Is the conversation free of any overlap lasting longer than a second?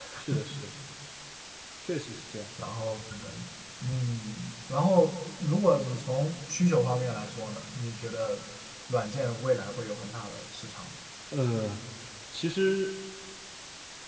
Yes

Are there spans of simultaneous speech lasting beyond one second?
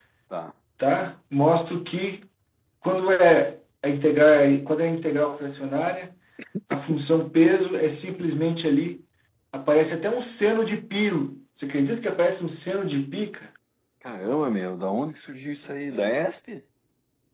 No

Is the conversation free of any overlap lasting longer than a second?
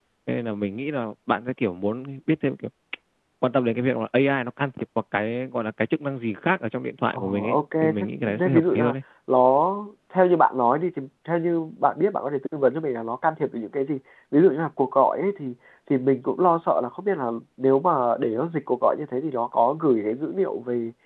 No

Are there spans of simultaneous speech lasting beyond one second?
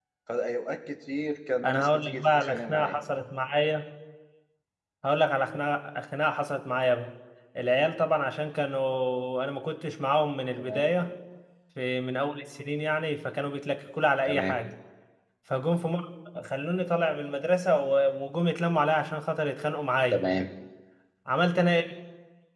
Yes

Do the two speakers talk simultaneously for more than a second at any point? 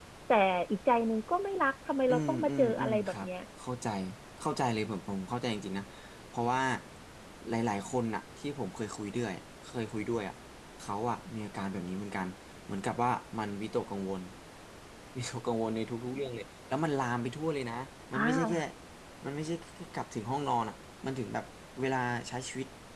Yes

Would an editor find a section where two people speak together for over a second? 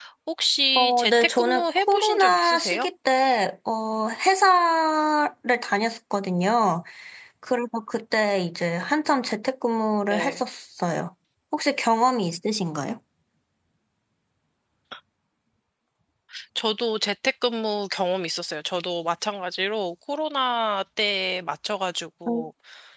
Yes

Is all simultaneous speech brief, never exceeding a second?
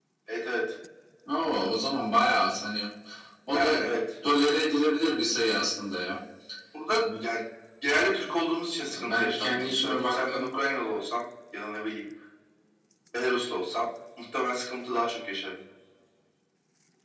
No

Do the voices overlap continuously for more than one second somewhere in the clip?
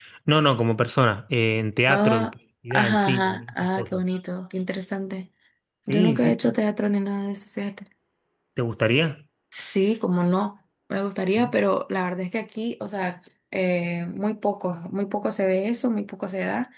Yes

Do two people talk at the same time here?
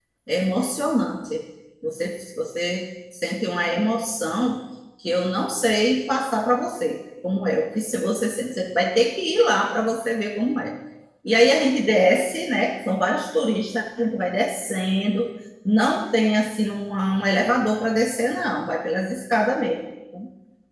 No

